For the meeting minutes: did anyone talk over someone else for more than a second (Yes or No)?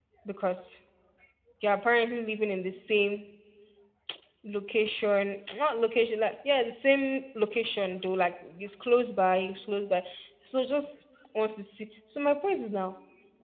No